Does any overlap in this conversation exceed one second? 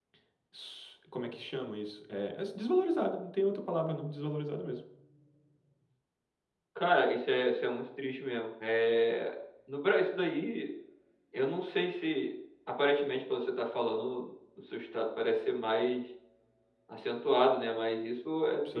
No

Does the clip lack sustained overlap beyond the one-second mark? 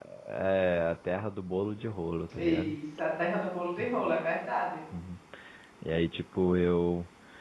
Yes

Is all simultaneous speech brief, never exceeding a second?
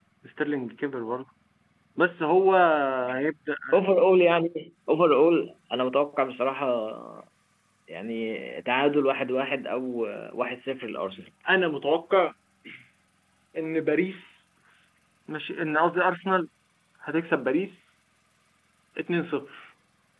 Yes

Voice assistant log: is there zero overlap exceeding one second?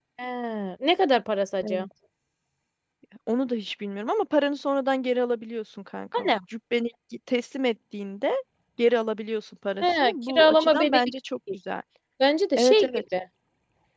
No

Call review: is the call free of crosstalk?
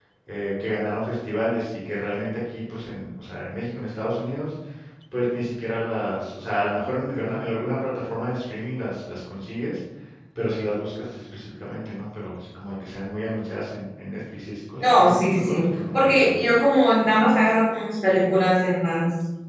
No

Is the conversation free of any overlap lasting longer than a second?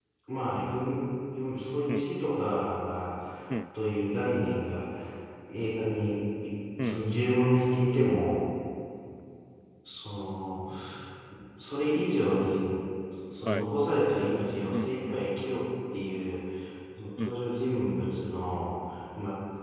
Yes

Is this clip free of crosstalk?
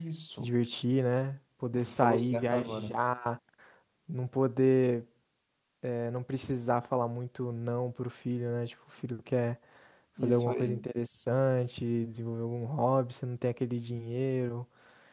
No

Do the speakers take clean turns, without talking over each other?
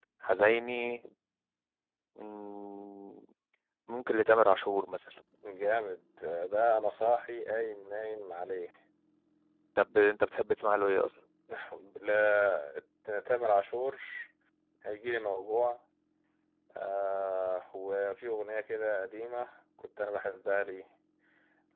Yes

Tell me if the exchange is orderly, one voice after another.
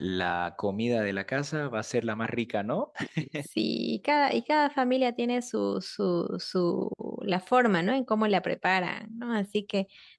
Yes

